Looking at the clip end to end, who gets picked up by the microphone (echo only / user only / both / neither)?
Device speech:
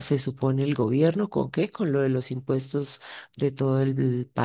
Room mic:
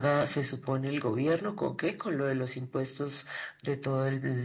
echo only